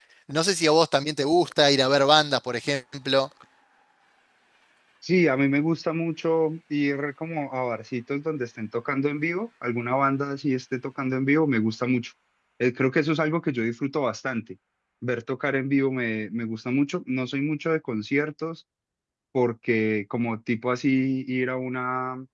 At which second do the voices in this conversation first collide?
none

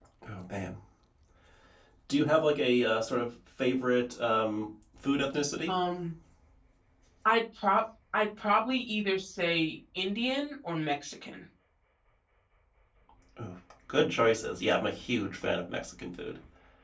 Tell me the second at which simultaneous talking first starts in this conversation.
none

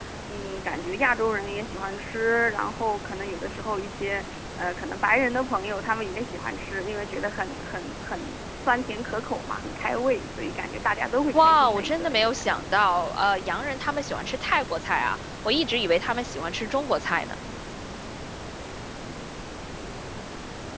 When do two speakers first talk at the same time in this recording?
11.3 s

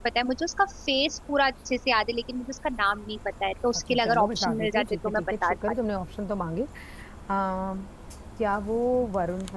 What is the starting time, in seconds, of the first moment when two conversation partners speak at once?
3.9 s

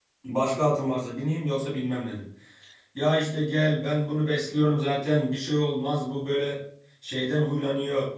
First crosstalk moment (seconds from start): none

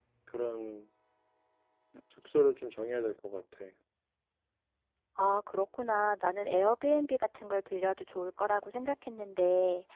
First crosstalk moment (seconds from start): none

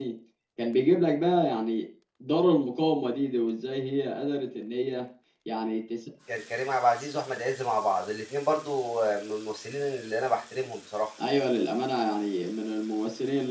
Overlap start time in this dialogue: none

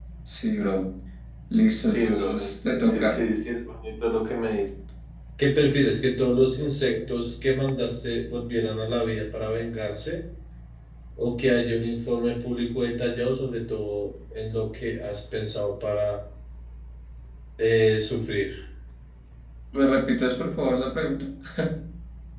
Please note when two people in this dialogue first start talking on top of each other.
1.9 s

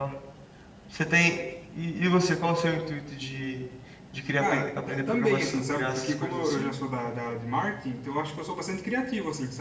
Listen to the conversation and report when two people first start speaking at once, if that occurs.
4.4 s

